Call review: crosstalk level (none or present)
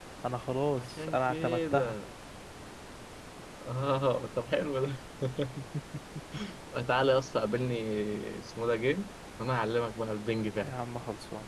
present